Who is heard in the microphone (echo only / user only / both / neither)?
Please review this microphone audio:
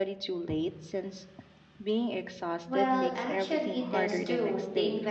both